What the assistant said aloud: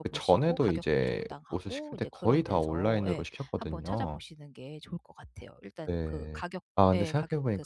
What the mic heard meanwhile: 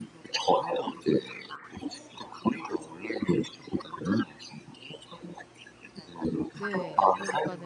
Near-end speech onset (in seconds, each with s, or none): 6.5 s